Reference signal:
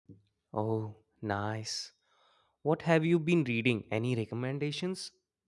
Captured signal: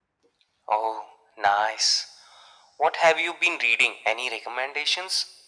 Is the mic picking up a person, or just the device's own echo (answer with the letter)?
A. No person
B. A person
A